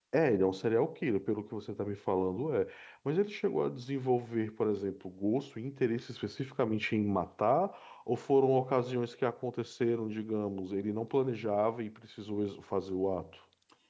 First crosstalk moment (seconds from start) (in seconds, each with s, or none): none